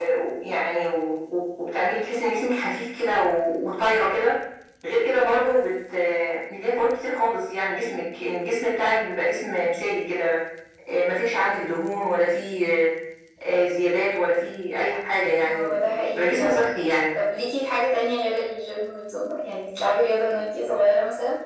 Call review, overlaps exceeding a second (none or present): present